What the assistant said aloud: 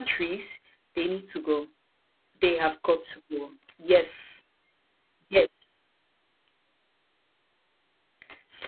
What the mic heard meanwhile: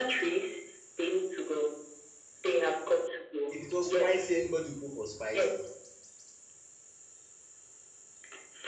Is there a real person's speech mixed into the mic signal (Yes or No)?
Yes